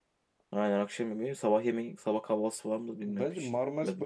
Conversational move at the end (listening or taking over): taking over